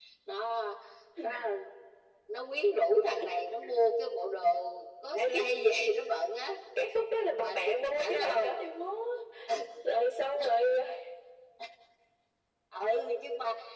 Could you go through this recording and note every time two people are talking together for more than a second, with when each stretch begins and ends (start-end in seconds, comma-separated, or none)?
7.3-8.6